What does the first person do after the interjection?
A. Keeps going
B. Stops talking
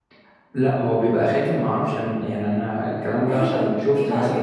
B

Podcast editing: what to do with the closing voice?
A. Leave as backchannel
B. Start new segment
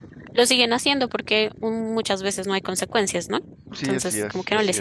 B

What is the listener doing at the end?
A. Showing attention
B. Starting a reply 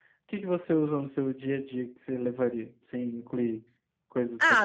B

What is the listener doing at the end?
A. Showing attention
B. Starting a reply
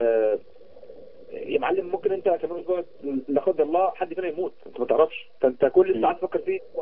A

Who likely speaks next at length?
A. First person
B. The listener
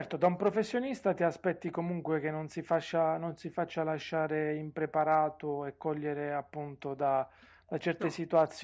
A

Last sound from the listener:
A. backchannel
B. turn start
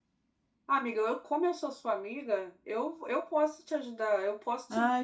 B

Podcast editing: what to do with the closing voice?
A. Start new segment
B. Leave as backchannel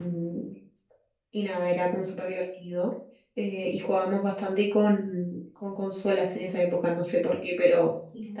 B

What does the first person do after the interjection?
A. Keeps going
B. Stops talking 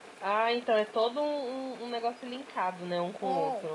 B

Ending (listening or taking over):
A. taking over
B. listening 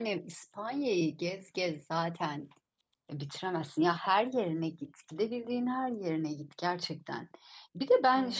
B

